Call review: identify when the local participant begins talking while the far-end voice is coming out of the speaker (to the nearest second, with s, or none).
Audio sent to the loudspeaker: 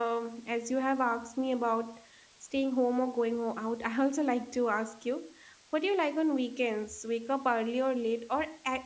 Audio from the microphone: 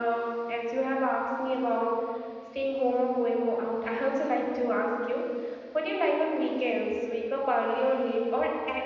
none